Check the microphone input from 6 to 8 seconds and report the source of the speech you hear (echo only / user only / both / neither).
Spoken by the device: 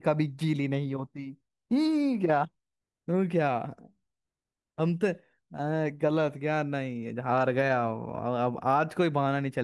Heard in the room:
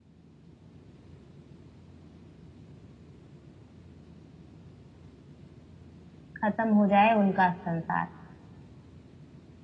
user only